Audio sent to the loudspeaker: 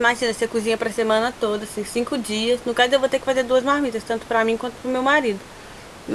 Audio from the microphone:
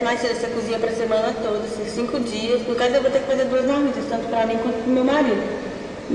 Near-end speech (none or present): none